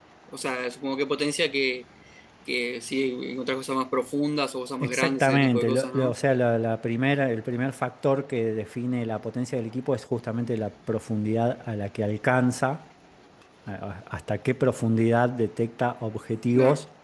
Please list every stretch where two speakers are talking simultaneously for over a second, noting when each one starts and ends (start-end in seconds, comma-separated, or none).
4.8-6.1